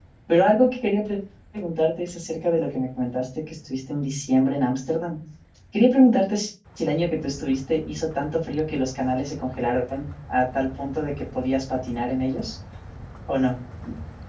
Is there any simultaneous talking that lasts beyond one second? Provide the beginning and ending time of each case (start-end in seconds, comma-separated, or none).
none